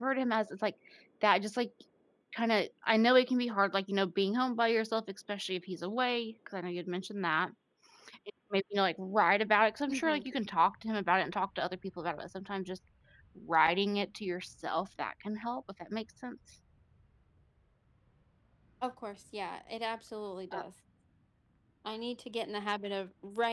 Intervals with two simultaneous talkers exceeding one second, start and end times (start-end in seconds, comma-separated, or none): none